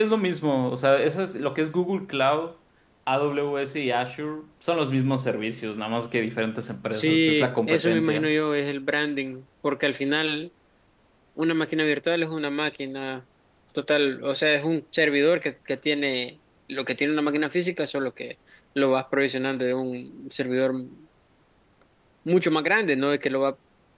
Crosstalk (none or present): present